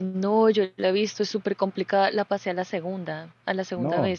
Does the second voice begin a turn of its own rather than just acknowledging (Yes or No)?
Yes